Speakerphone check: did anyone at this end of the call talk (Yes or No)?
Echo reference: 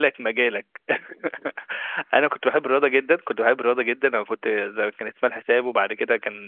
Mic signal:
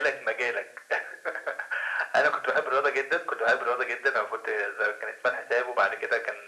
No